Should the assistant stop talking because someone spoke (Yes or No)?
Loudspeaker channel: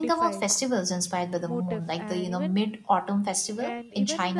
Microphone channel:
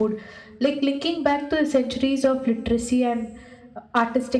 Yes